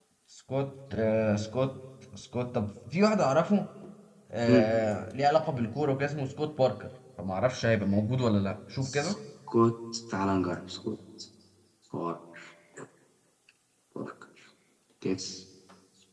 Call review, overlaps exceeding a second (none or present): none